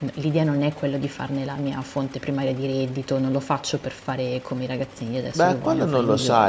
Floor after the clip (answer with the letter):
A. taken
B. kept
A